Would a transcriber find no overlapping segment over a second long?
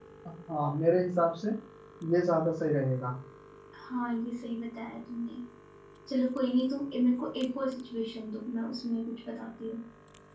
Yes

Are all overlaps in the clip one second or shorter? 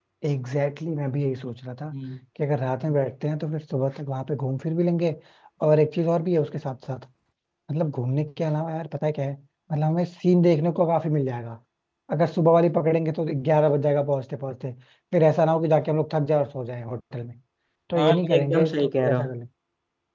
No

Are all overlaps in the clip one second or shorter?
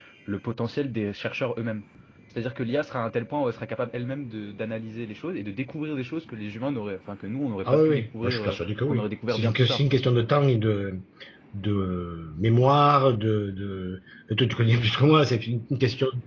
No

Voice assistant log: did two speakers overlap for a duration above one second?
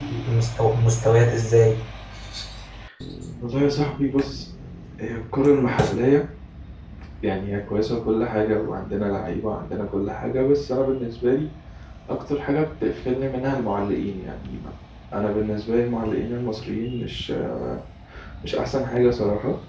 No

